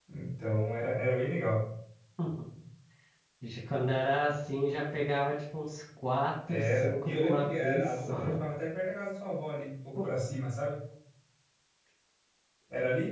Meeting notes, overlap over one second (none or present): present